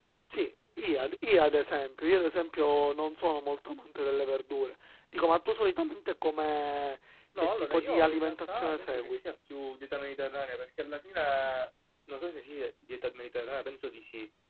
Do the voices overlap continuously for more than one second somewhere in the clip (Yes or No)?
Yes